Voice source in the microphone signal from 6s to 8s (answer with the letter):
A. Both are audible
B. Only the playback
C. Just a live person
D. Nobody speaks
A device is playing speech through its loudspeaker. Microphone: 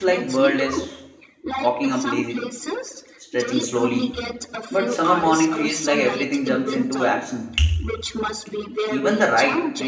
A